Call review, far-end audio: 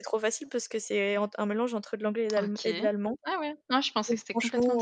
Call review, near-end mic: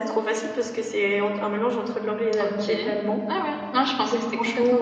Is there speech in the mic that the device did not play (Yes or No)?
No